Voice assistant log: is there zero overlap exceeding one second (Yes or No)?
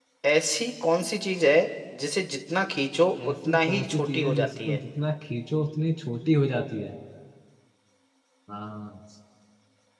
No